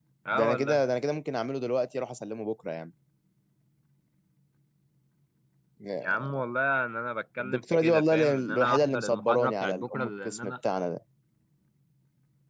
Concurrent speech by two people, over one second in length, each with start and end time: 7.4-10.5

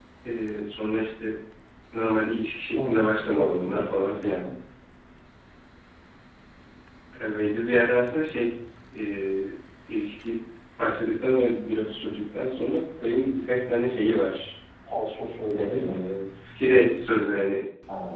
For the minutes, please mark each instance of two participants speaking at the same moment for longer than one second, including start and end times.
2.7-4.5

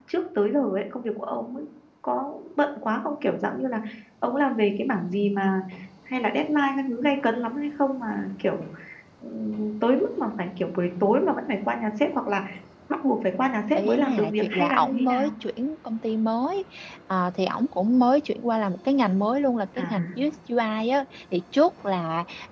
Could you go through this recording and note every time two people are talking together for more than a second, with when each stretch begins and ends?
13.8-15.3

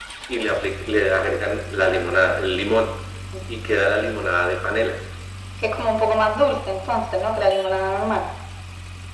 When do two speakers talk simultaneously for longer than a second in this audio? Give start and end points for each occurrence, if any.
none

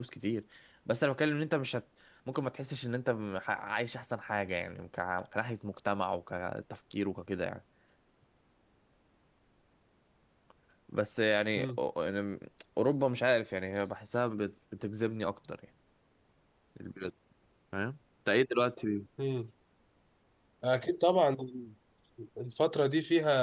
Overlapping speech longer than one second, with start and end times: none

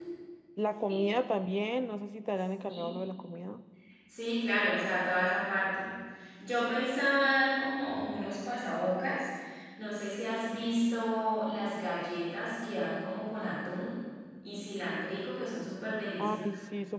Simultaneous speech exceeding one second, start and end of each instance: none

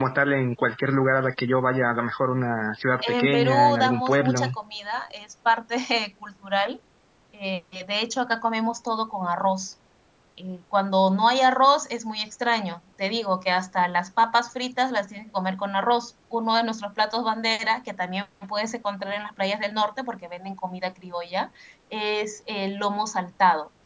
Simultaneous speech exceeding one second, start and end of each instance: 3.0-4.5

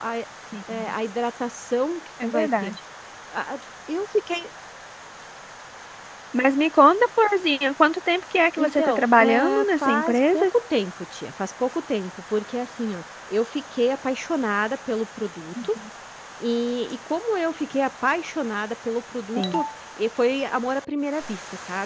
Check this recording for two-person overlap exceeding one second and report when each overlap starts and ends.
8.6-10.5

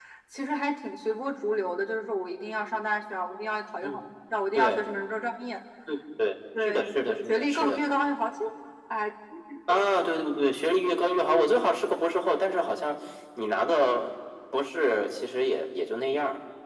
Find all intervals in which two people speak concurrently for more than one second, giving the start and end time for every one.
6.6-7.8

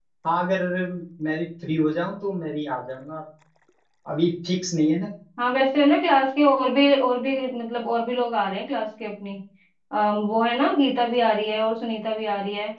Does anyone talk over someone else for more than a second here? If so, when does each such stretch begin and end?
none

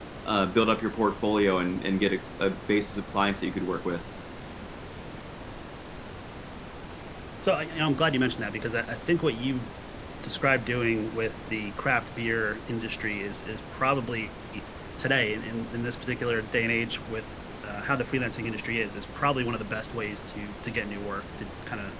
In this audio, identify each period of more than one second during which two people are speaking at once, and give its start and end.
none

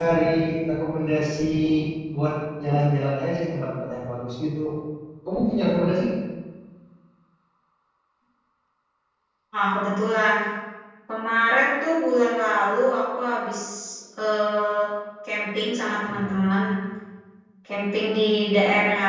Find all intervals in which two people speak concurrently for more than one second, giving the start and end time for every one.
none

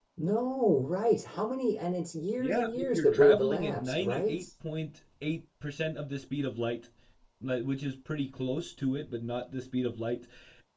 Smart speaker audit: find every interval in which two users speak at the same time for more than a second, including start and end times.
2.4-4.4

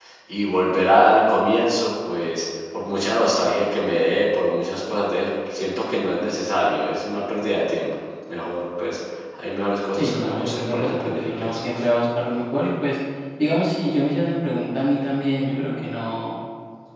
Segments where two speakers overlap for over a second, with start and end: 9.9-11.6

